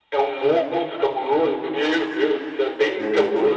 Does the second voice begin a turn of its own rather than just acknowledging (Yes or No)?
No